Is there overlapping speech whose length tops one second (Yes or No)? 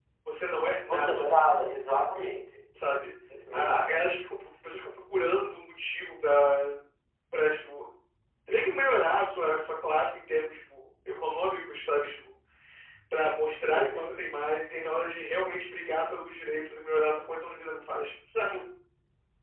No